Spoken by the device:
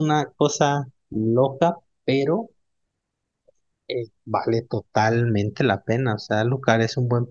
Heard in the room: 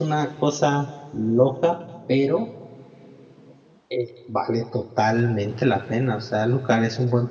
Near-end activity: none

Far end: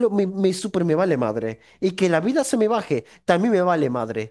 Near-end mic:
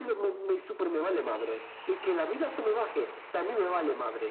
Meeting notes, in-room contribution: none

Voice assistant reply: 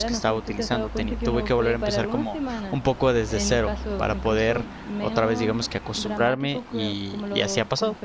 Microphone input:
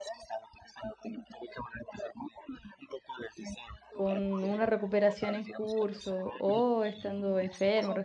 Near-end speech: present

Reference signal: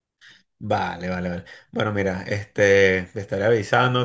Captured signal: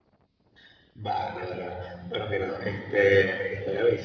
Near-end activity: none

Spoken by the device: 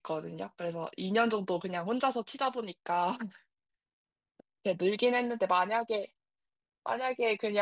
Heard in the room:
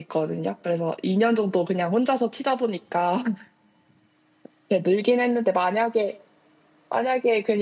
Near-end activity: none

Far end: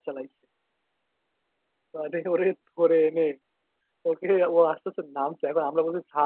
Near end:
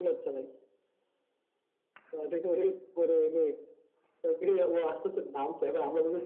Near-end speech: none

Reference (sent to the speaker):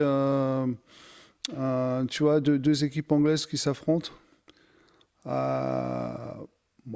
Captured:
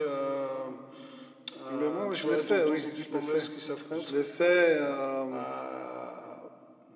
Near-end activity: present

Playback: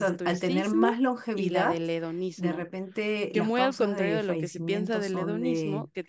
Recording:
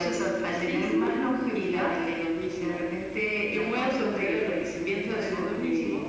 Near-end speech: none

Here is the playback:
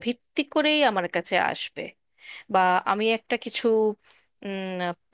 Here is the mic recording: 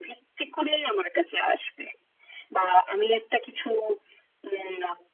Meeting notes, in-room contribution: none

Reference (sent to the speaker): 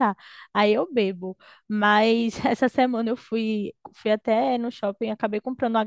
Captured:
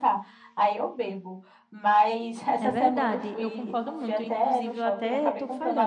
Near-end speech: present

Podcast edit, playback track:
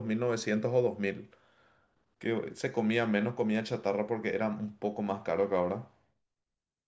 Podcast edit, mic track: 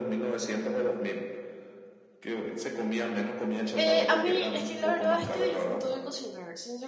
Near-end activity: present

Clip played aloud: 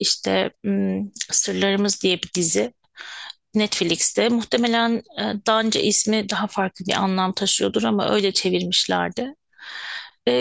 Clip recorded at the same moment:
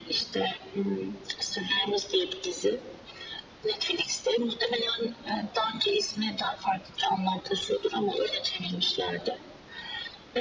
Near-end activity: none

